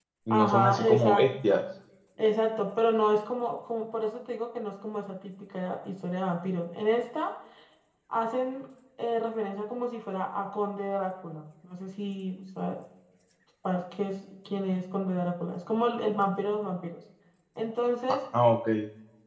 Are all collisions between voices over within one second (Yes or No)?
No